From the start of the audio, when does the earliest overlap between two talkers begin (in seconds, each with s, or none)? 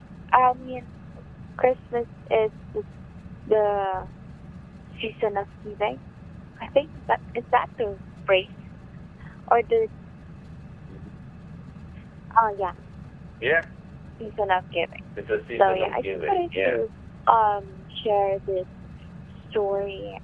15.5 s